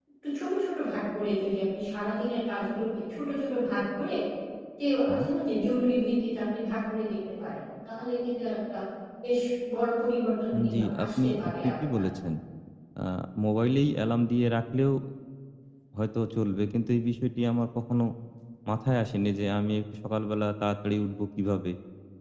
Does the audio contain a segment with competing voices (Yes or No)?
Yes